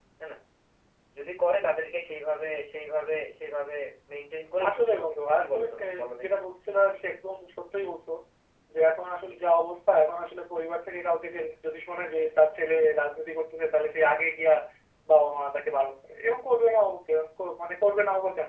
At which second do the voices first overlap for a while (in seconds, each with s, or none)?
4.7 s